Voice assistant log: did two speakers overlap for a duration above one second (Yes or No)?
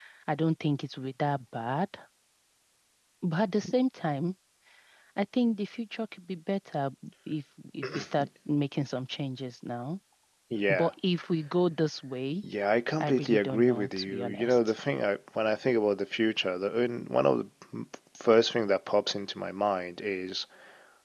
Yes